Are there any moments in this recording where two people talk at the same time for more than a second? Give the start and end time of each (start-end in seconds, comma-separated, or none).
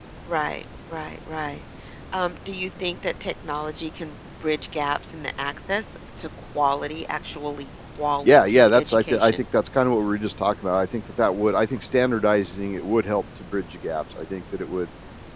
8.2-9.4